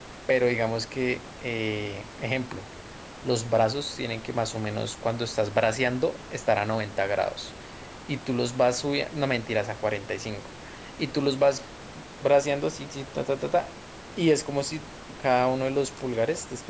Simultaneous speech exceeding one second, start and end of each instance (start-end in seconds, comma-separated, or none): none